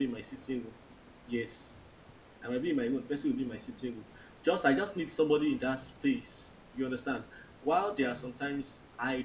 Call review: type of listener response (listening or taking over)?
listening